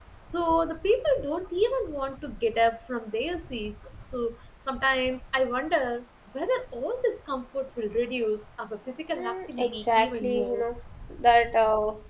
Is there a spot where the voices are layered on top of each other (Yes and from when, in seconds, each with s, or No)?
Yes, from 9.2 s